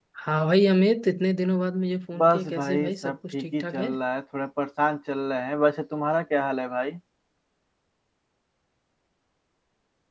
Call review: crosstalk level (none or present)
present